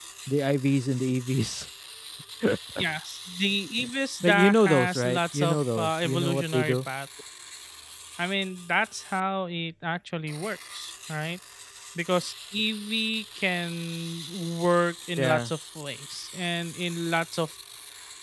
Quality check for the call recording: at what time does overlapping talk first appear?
4 s

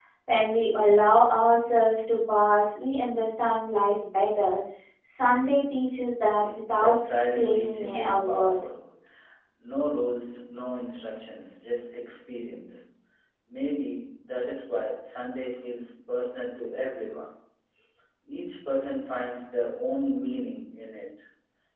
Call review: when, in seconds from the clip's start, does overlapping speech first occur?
7 s

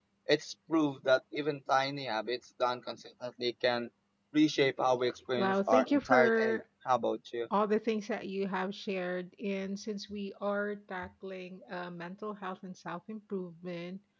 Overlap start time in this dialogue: 5 s

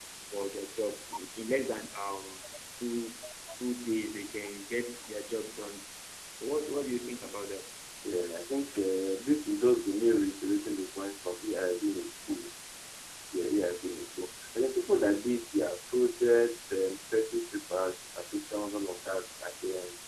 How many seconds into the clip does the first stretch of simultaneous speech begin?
none

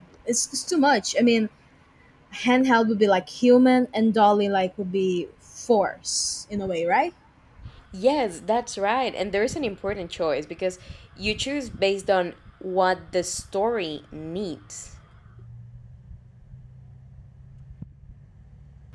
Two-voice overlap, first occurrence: none

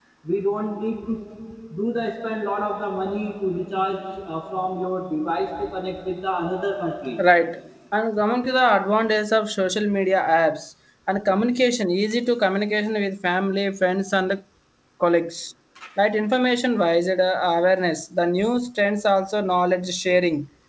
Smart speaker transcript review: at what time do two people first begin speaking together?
none

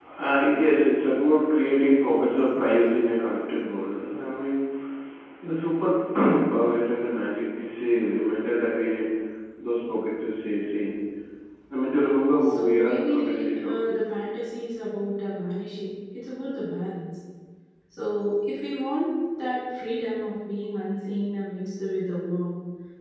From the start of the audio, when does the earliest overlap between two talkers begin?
13 s

